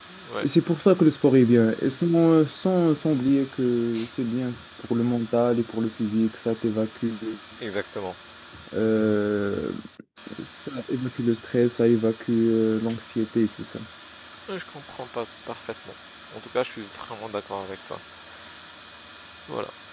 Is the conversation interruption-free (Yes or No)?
Yes